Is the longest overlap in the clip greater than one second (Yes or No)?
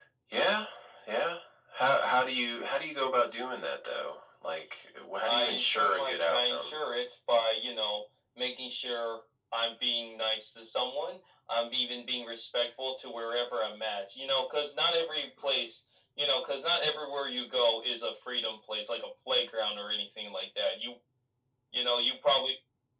Yes